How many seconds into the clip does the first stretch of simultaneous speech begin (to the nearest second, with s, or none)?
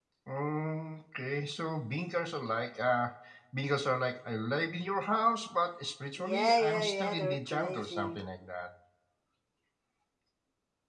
6 s